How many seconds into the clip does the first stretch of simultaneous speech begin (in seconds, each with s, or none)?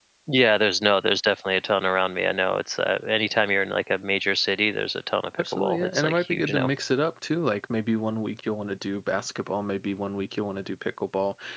5.4 s